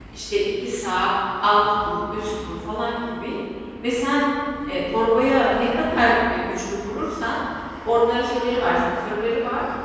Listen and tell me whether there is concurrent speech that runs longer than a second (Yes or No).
No